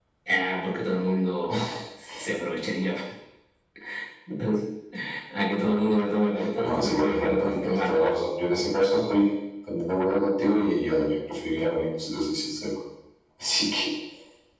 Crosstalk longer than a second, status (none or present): present